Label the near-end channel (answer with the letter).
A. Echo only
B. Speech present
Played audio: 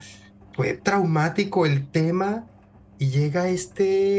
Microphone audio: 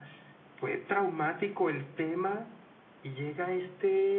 A